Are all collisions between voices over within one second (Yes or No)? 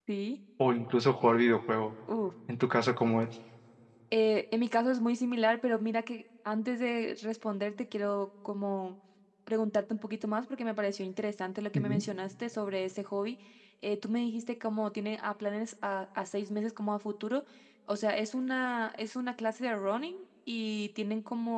Yes